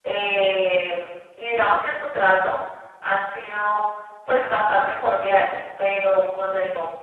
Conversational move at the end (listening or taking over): listening